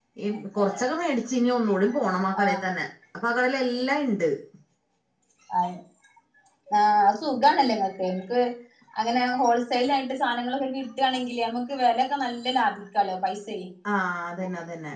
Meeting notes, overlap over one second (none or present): none